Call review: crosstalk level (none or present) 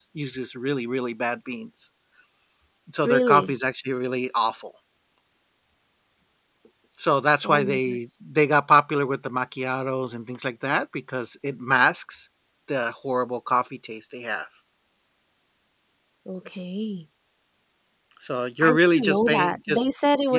present